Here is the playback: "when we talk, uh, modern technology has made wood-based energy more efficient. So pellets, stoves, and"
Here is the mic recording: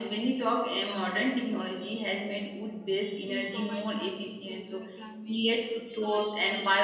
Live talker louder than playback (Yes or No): No